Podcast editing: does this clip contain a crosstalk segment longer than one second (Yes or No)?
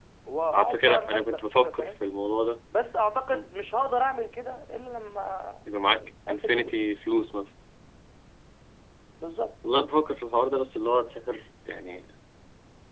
Yes